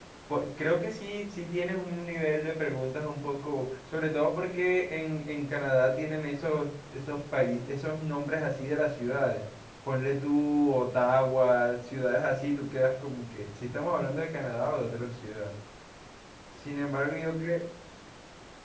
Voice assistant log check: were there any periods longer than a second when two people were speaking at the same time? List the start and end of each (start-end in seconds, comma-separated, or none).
none